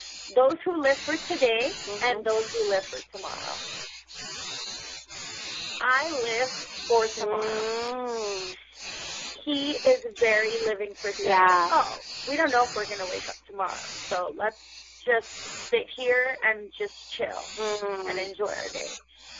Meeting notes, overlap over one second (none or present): none